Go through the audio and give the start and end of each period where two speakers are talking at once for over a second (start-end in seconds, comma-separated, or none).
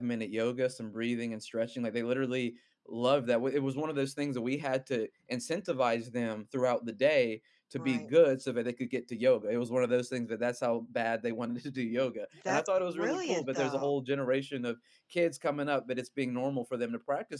12.5-13.9